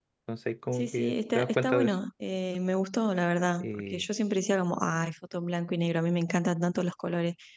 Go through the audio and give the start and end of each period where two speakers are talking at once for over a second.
0.7-1.9

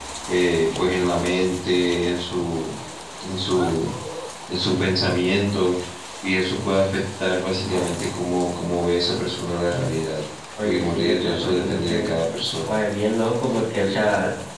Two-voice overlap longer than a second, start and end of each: 10.6-12.1

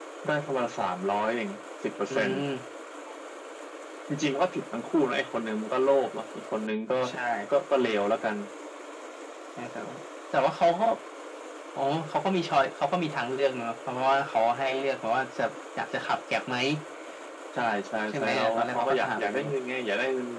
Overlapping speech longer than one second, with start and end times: 18.2-19.4

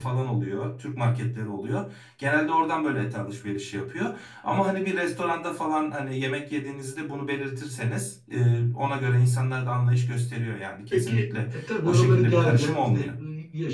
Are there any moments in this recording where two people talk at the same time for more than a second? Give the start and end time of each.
10.9-13.0

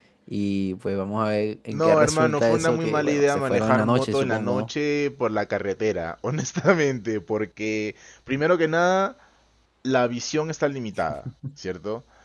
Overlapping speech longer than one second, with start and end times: 1.7-4.7

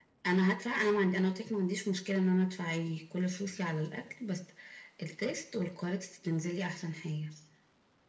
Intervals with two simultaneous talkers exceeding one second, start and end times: none

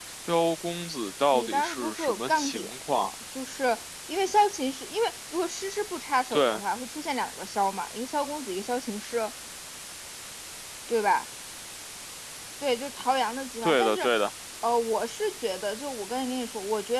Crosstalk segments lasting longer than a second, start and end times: 1.3-3.1

